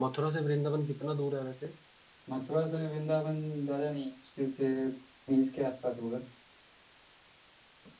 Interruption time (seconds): none

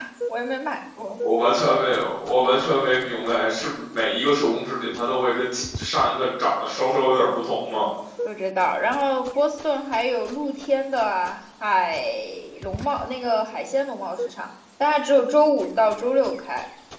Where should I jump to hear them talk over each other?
none

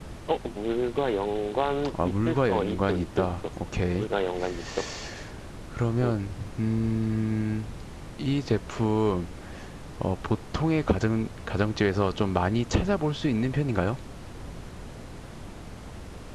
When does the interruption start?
1.9 s

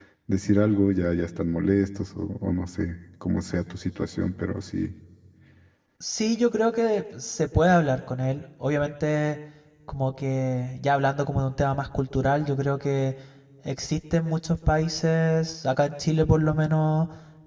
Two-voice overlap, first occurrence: none

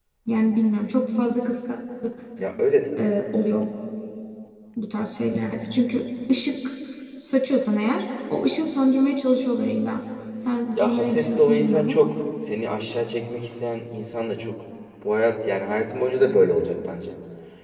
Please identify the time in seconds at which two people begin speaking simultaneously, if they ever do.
10.8 s

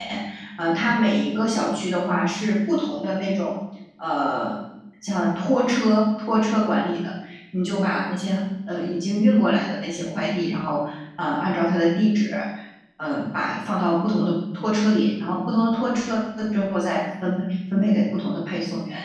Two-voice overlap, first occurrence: none

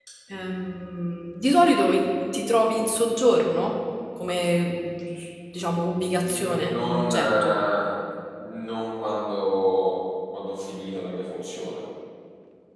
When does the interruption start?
6.2 s

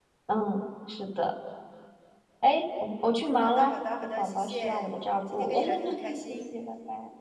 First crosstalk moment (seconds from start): 3.4 s

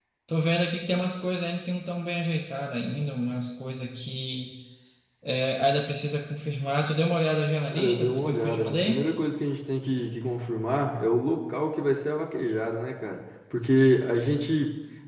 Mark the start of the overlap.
7.7 s

